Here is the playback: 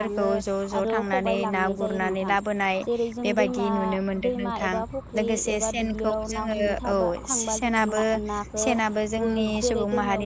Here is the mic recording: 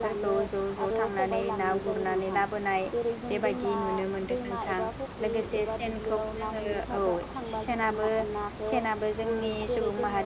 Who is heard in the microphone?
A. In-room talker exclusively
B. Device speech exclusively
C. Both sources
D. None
B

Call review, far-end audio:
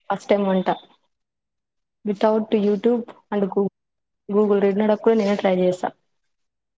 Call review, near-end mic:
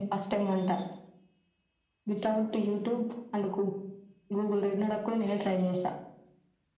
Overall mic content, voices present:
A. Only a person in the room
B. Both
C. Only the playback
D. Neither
C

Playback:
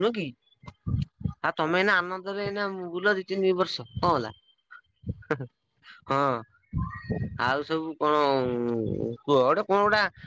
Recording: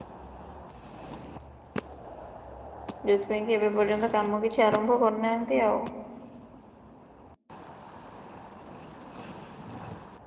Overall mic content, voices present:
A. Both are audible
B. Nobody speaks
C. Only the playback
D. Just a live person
D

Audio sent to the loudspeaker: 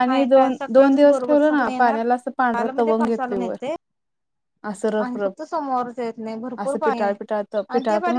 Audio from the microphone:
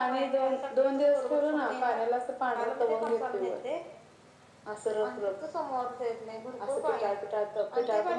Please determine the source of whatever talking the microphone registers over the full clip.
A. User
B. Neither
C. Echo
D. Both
C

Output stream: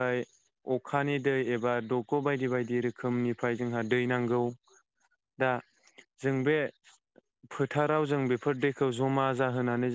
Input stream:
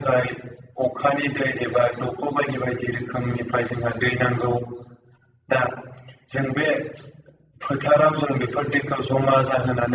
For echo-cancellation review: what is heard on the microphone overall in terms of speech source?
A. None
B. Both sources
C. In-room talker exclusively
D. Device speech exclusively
D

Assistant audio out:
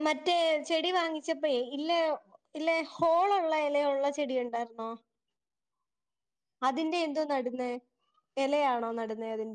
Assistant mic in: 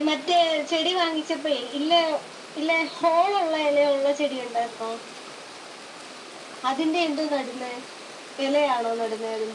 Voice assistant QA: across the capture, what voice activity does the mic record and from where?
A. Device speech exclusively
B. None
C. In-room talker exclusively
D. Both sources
A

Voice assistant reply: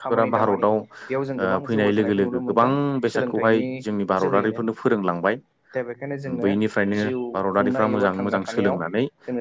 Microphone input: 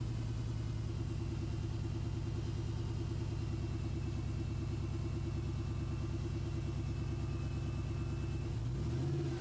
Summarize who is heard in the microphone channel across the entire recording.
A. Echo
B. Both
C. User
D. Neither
D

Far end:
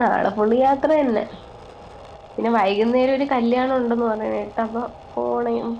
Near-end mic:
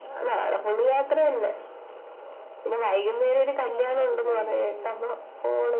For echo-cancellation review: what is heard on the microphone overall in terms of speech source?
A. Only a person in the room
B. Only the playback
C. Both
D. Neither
C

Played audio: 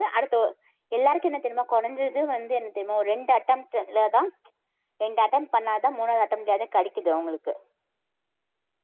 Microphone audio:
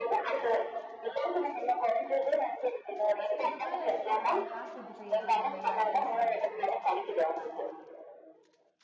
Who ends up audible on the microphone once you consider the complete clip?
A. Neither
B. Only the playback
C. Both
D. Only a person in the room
C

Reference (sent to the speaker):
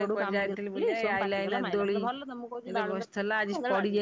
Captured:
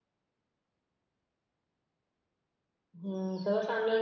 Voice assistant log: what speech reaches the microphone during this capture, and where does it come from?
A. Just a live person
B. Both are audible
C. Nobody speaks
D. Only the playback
A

